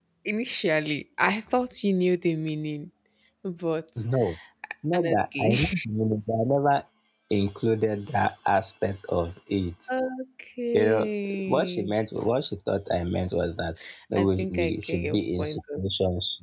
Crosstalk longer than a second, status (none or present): present